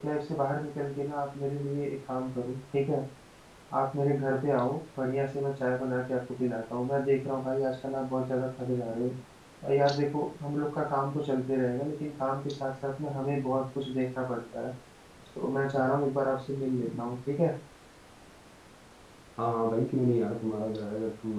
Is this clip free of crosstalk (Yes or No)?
Yes